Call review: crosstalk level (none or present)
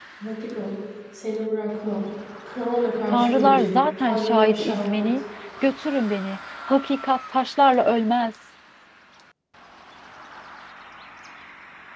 present